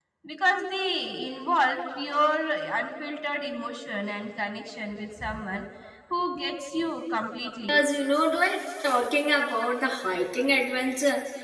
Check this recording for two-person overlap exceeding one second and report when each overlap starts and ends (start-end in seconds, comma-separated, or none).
none